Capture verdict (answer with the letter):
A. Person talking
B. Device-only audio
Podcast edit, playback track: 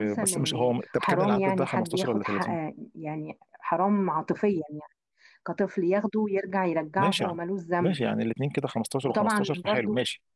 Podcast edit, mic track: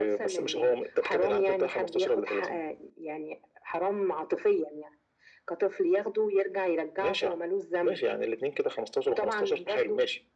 B